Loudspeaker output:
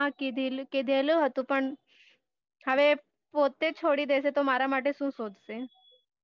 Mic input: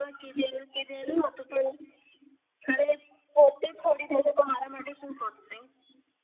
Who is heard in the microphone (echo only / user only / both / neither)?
echo only